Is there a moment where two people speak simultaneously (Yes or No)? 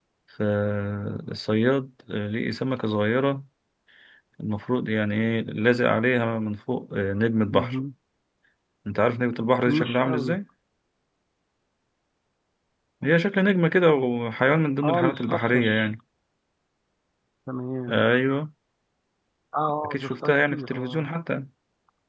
Yes